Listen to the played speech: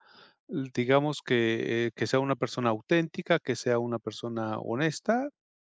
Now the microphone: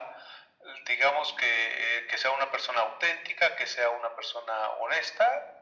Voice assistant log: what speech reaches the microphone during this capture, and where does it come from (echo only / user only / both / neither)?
echo only